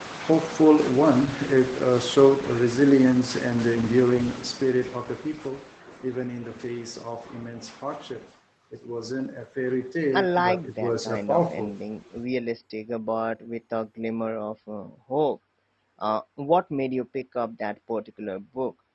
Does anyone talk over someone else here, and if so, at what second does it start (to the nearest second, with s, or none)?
10 s